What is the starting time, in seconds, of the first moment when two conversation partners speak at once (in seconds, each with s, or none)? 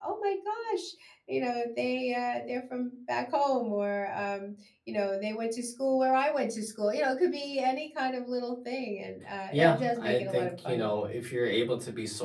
9.5 s